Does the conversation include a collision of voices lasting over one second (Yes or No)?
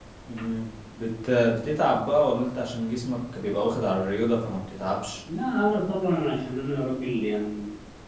No